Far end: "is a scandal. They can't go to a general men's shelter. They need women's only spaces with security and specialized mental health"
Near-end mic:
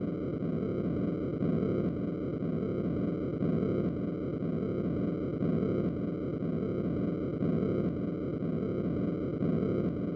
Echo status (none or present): none